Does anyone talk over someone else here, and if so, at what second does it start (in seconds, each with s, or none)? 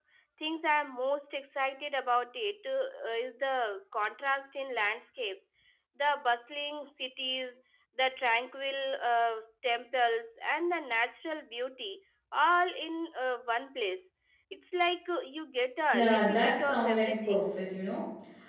15.9 s